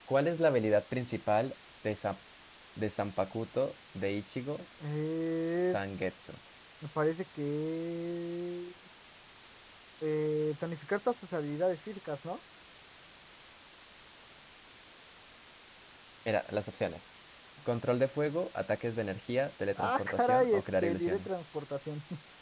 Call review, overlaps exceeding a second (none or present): present